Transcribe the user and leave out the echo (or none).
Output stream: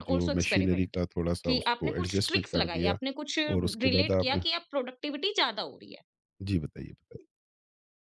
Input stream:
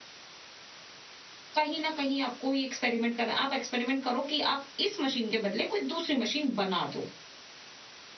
कहीं न कहीं आपको ये एक्सपेरिमेंट करना आप एक्सपेरिमेंट करो कि आप इस मशीन के बदले कोई दूसरी मशीन बना दो,